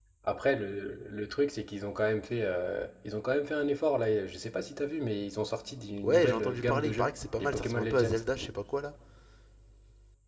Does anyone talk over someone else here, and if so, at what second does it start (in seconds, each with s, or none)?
6.0 s